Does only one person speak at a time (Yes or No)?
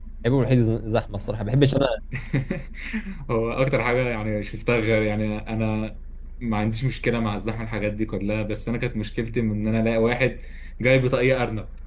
Yes